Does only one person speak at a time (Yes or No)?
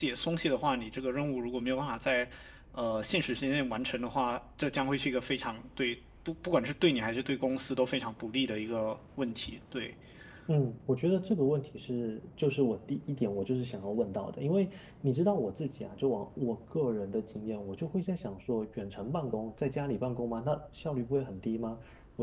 Yes